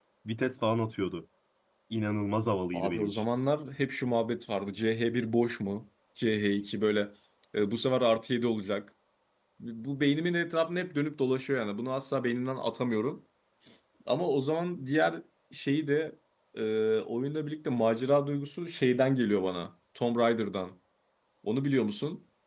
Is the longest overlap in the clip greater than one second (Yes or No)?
No